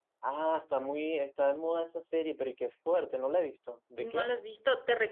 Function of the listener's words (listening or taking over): taking over